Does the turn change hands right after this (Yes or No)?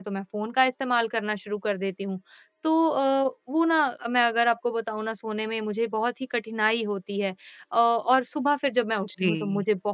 No